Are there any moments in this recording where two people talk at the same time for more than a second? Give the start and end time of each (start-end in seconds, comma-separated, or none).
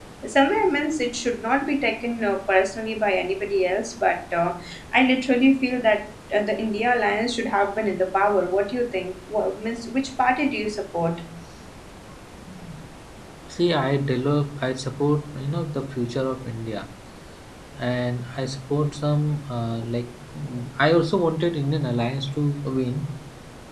none